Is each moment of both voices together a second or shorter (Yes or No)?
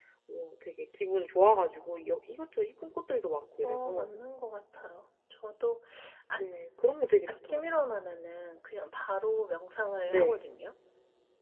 Yes